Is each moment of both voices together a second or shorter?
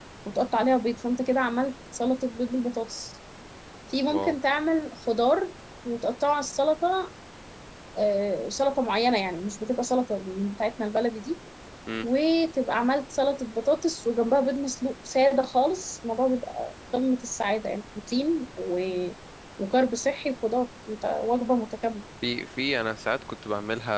Yes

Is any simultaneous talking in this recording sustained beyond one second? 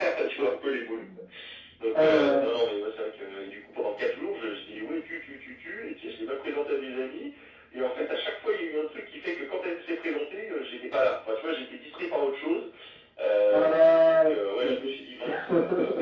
Yes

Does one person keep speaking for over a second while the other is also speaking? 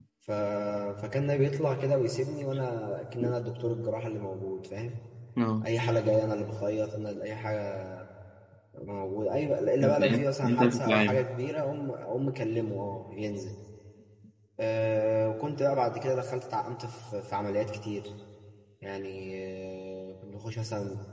Yes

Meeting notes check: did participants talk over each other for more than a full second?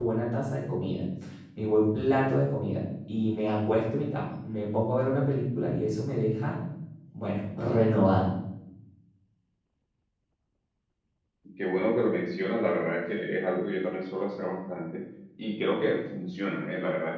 No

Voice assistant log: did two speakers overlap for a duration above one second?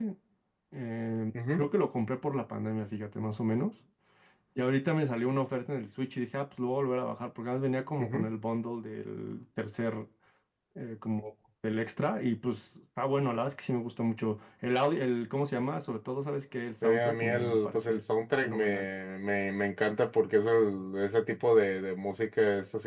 Yes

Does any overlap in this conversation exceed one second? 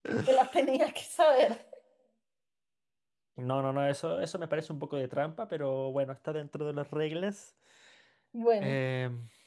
No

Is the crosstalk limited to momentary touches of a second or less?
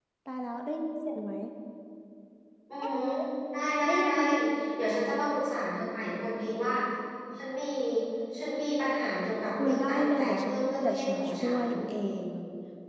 No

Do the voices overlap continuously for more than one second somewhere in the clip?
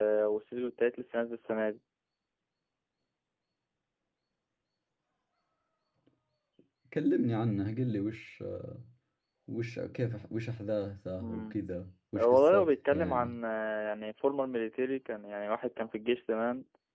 Yes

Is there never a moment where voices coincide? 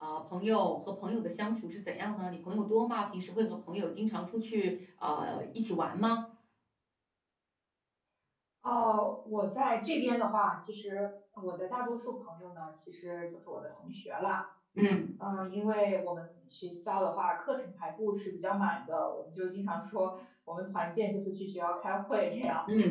Yes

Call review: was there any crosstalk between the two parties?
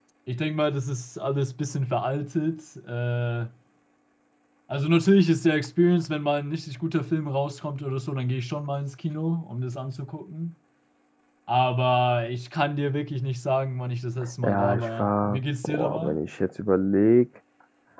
Yes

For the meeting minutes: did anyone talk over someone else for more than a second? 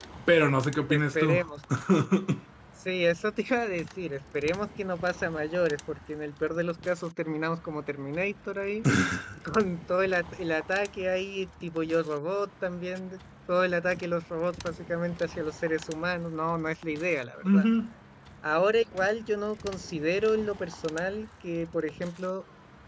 No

